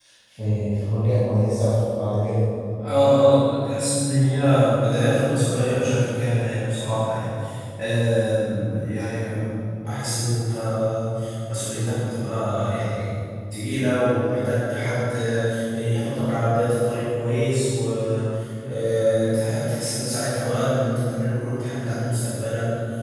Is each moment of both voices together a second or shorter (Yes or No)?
Yes